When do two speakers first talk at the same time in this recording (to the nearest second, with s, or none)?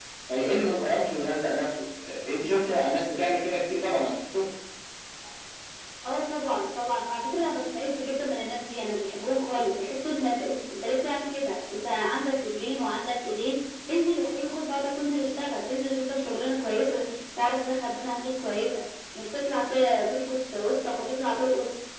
none